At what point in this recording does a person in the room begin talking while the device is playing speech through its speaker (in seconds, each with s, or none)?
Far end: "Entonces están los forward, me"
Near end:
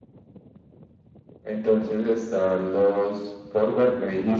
none